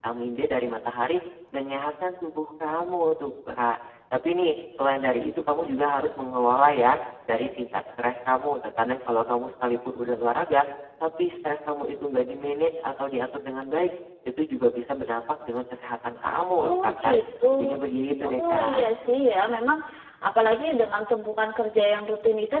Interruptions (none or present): present